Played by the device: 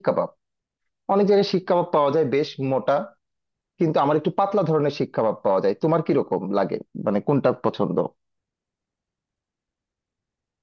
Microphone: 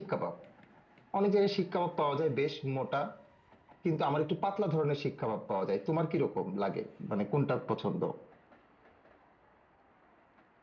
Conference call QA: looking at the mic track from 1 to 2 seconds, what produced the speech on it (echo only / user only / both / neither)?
echo only